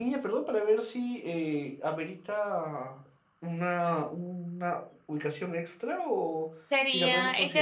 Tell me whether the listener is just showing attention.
No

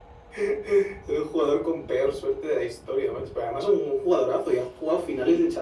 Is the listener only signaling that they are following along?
Yes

